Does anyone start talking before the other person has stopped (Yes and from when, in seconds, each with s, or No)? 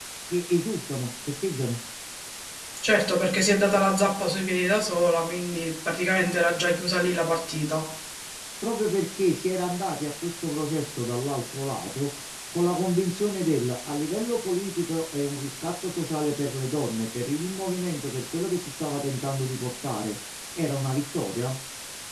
No